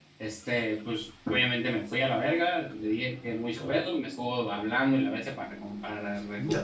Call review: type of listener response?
taking over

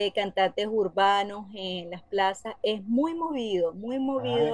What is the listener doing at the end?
taking over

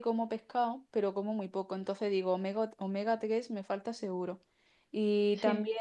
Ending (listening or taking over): listening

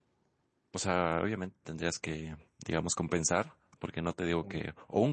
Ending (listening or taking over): listening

